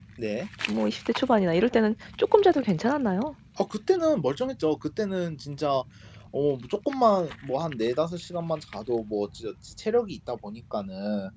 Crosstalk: none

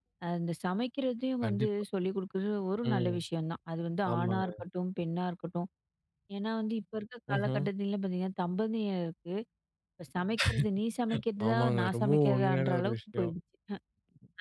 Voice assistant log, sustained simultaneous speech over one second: present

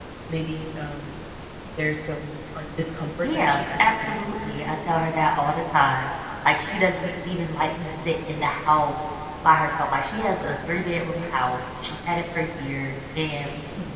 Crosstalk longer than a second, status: present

